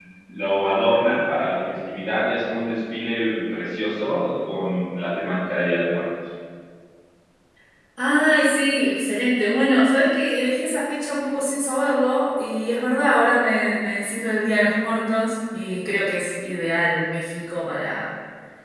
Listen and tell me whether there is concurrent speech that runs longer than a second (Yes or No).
No